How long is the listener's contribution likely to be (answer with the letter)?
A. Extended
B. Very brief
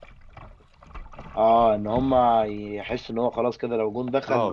A